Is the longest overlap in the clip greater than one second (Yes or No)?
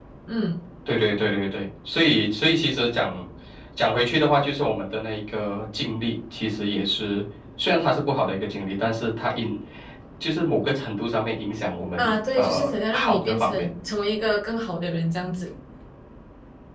Yes